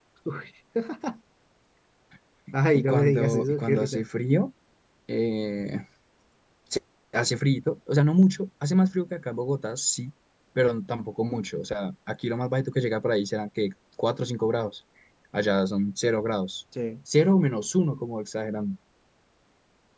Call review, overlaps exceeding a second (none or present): present